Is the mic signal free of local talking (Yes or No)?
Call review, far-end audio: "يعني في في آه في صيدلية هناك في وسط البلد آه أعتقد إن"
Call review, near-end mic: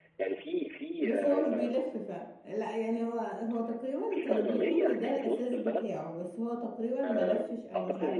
No